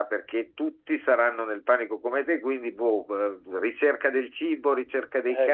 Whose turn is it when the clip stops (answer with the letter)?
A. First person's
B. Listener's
B